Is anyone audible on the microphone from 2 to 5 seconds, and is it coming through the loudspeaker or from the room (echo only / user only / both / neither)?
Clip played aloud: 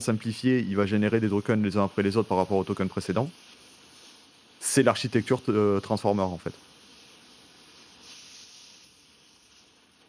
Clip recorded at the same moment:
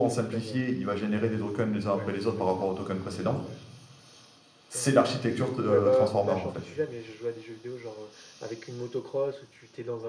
both